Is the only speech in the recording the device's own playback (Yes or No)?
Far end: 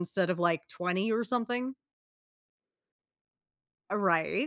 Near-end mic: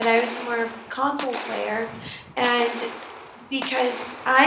No